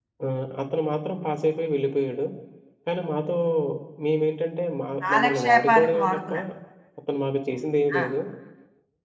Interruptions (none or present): present